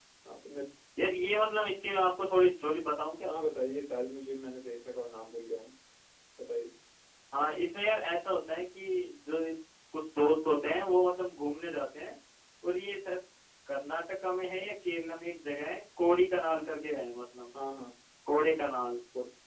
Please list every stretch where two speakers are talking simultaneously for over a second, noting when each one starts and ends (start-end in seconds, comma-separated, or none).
none